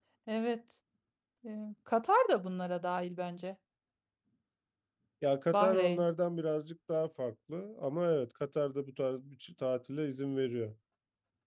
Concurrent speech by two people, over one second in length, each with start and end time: none

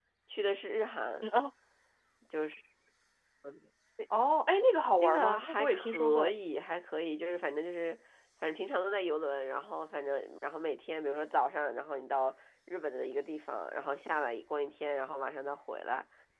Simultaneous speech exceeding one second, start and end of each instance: 5.0-6.3

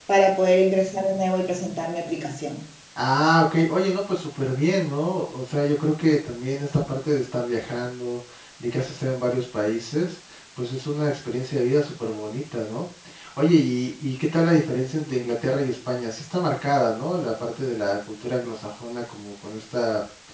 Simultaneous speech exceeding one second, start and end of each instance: none

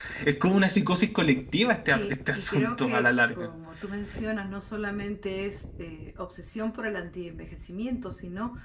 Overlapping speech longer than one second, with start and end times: 1.8-3.5

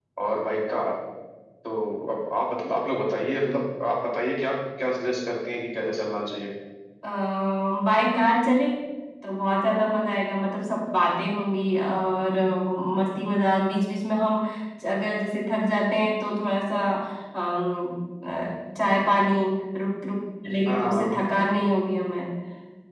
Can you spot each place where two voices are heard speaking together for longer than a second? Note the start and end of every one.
none

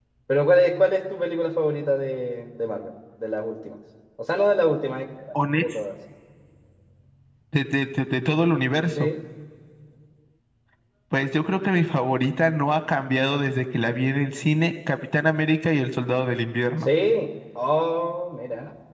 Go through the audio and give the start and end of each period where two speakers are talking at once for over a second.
none

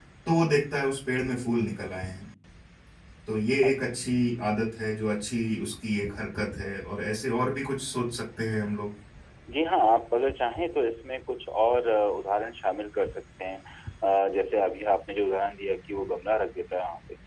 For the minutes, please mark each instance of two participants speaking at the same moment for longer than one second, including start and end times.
none

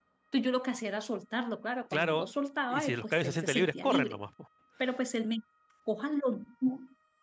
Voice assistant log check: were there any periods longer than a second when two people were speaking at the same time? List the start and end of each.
2.7-4.2

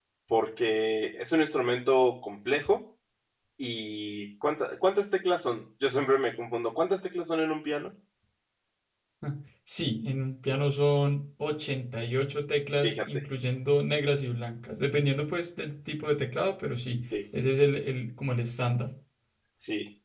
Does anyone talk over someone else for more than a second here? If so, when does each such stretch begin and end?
none

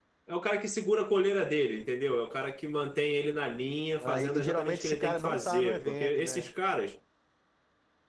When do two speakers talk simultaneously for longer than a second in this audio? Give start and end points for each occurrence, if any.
4.0-6.5

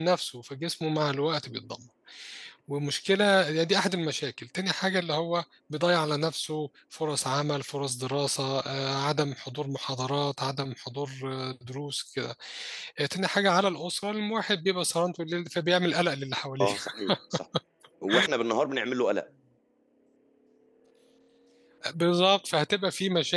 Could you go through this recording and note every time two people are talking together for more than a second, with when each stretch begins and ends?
none

